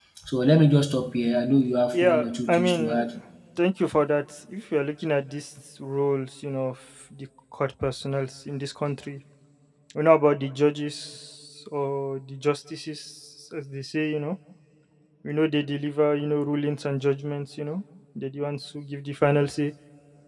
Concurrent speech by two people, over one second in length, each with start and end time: 1.9-3.1

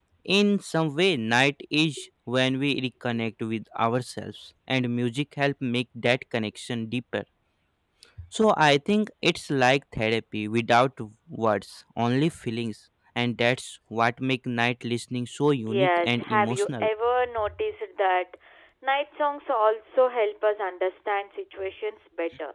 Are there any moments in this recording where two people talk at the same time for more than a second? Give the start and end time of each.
15.6-16.9

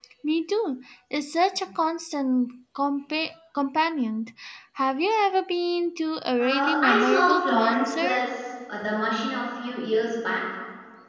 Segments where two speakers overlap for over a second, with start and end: 6.4-8.2

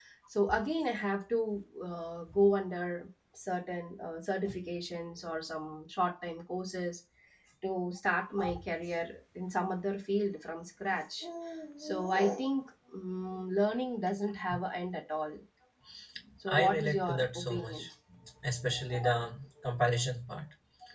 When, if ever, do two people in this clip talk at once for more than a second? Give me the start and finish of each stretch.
16.5-17.9

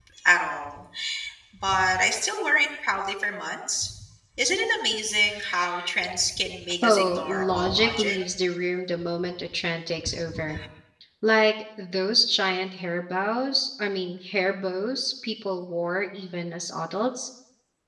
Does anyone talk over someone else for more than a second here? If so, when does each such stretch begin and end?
6.8-8.2

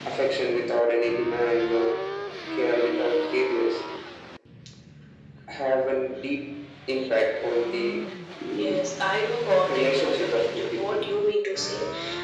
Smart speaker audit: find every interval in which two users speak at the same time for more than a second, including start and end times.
9.7-11.0

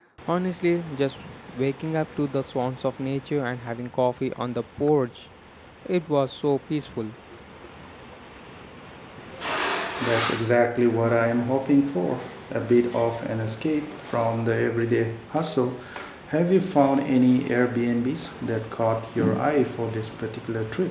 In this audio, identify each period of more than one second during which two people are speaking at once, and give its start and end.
none

